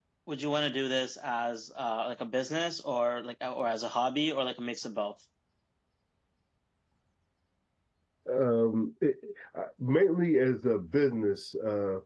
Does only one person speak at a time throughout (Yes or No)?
Yes